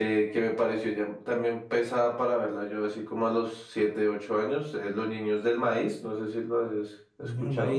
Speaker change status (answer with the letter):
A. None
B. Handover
B